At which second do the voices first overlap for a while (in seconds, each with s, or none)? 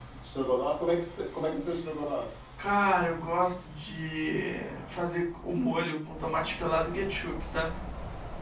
none